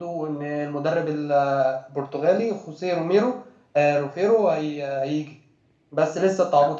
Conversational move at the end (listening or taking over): listening